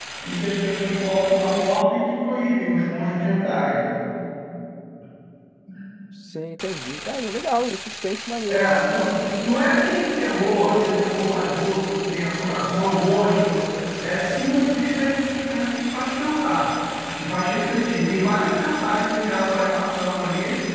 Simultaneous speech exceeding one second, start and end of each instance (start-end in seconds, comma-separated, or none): none